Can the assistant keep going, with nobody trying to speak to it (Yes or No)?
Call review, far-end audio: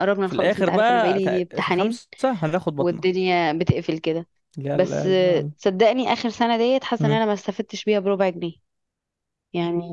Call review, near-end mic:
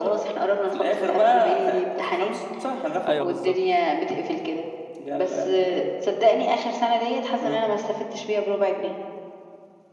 No